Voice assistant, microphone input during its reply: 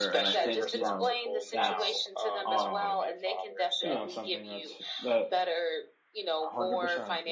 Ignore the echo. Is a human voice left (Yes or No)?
Yes